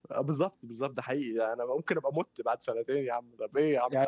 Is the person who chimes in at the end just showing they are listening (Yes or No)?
No